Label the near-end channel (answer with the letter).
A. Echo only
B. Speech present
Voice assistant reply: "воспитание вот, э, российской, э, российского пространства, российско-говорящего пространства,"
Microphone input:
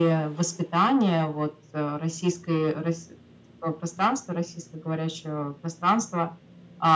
A